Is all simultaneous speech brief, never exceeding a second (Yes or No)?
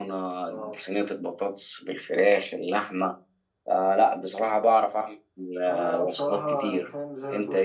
No